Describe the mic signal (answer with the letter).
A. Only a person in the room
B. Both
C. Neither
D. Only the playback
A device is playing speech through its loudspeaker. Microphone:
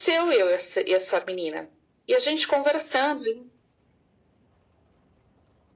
D